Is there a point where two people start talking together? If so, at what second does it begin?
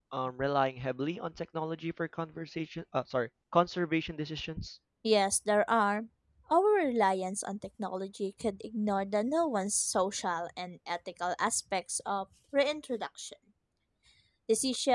none

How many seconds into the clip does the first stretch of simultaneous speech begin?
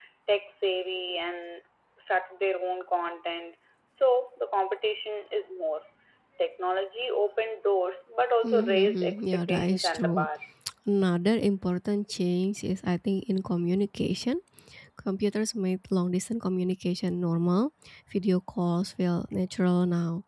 8.4 s

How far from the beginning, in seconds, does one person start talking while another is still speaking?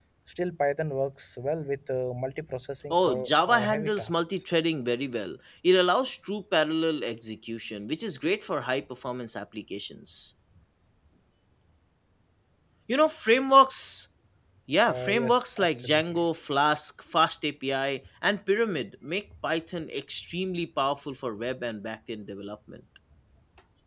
2.9 s

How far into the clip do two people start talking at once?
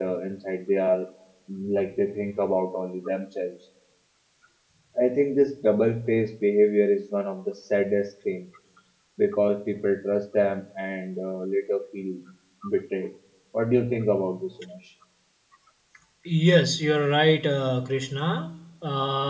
none

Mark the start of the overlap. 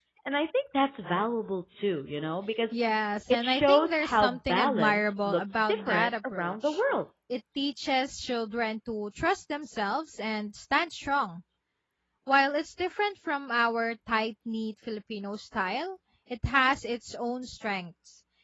3.3 s

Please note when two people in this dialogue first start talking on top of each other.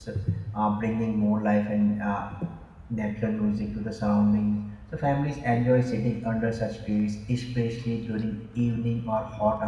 none

